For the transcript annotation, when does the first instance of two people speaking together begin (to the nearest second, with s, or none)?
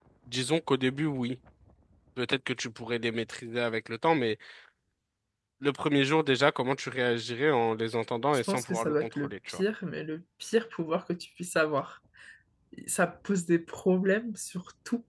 8 s